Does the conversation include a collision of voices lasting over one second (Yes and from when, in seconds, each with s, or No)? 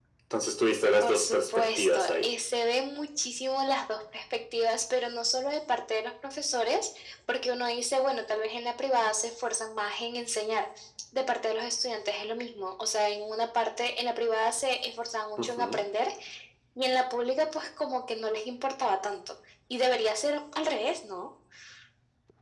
Yes, from 1.0 s